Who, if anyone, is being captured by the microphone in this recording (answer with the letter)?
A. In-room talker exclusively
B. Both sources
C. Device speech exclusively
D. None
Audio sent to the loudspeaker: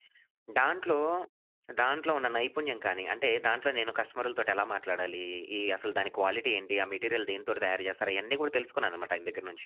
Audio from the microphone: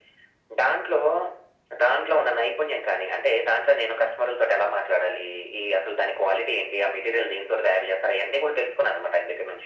C